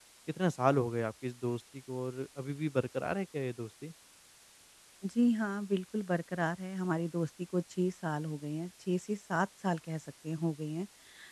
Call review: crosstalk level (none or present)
none